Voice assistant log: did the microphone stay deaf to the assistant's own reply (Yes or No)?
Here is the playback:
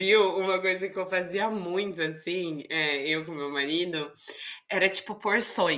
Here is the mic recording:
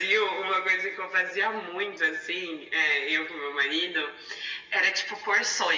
No